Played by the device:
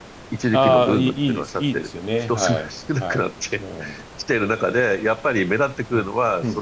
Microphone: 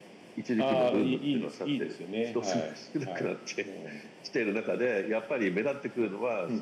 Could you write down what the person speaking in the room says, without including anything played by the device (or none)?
none